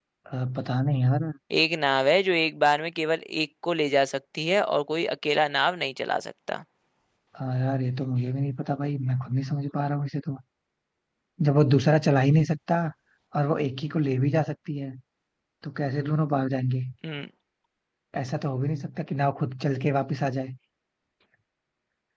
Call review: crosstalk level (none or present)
none